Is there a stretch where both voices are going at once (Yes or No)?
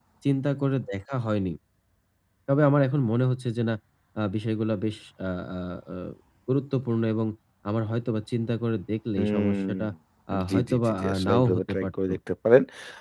Yes